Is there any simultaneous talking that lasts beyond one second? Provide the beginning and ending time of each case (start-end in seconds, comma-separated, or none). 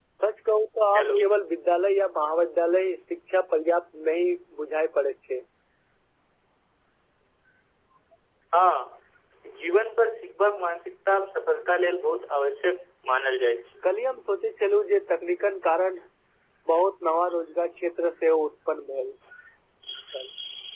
none